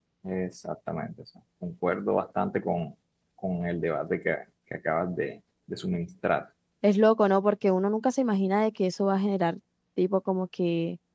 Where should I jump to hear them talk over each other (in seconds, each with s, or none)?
none